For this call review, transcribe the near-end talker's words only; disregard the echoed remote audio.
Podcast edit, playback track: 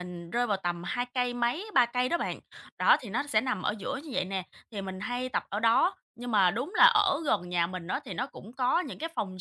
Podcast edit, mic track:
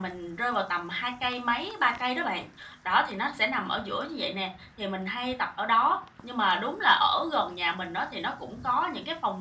none

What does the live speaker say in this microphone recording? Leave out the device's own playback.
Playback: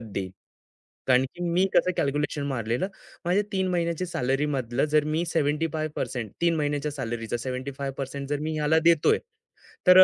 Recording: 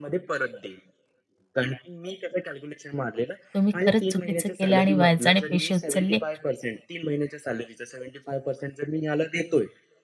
तुम्ही खरंच चुकीचं केलं आणि व्याजाने पैसे उचलले,

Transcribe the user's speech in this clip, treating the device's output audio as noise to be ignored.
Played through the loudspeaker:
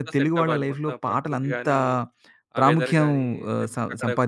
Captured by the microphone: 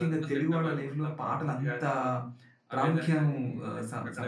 none

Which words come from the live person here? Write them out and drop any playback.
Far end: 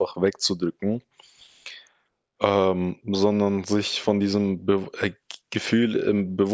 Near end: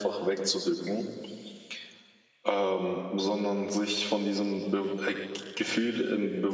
none

